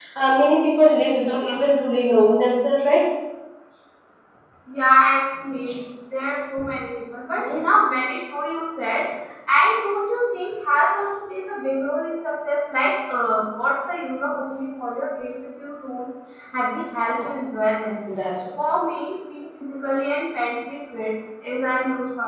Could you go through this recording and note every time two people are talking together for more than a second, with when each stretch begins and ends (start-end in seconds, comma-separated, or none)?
none